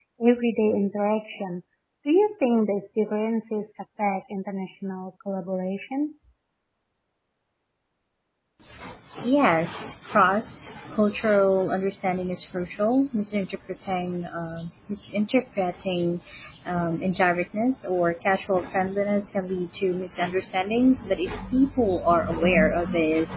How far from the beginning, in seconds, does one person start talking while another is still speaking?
none

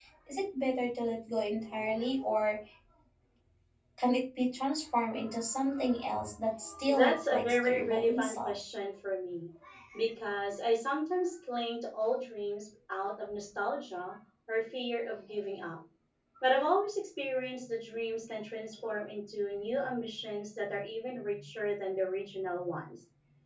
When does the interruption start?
7 s

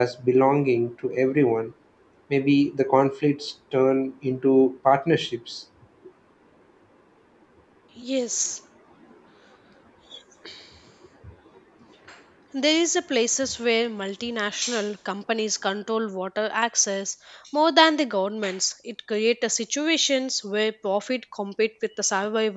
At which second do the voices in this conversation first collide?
none

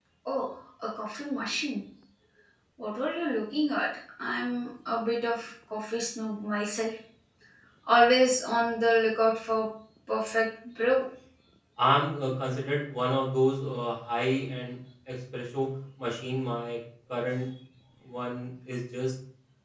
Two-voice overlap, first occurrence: none

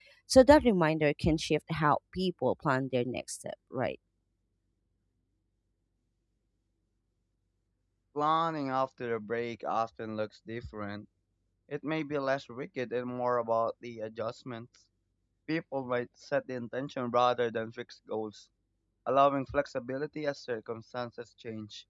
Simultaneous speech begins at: none

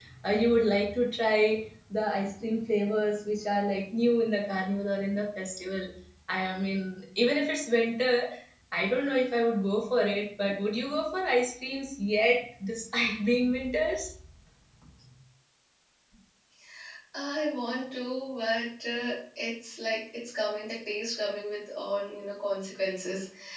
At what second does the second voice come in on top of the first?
none

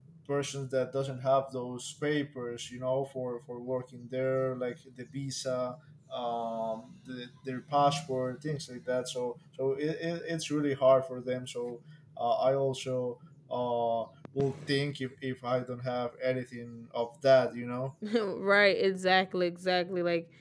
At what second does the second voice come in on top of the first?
none

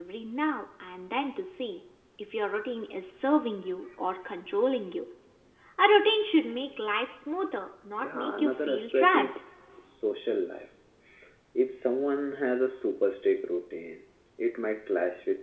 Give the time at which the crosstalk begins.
8 s

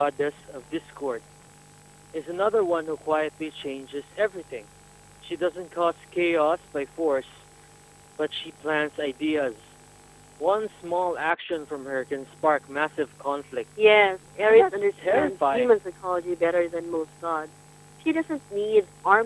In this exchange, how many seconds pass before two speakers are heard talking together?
14 s

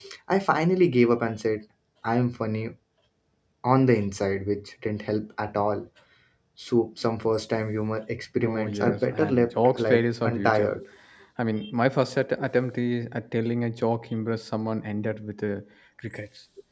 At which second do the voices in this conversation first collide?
8 s

